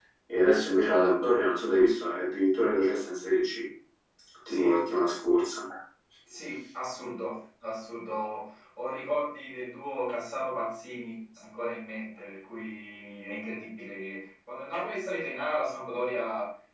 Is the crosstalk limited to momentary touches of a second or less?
Yes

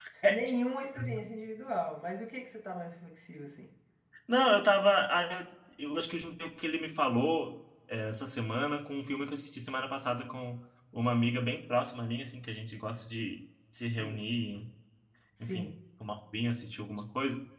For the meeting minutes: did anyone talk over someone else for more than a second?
No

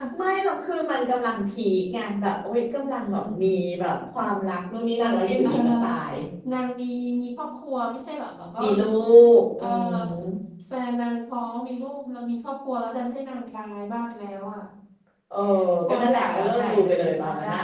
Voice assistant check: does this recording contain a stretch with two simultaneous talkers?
Yes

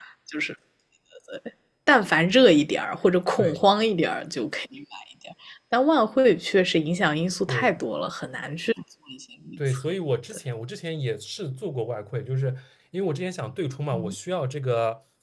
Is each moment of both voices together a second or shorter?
Yes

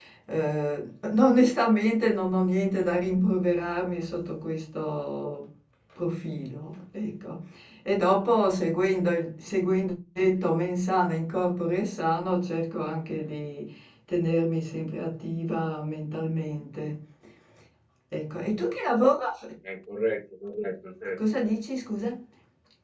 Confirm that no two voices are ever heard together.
Yes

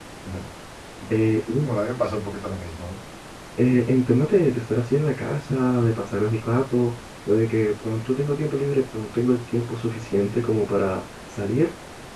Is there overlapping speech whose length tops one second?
No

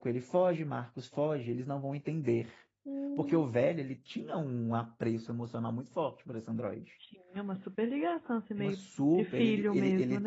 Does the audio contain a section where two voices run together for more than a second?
Yes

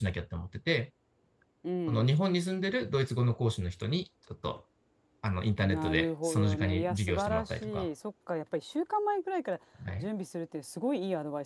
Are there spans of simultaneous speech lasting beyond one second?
Yes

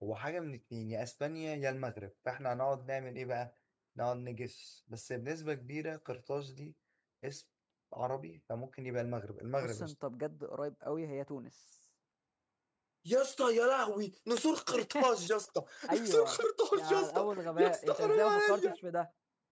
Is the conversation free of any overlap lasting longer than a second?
No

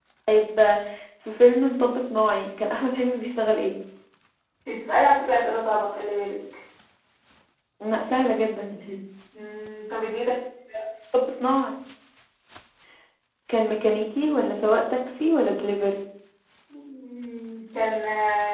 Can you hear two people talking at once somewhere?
No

